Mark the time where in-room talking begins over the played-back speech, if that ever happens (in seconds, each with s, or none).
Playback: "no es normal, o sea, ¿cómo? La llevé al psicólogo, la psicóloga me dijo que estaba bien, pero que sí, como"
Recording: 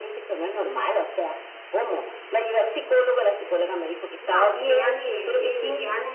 4.2 s